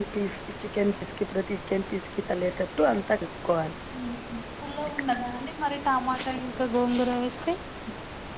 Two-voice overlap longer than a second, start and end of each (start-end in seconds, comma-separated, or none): none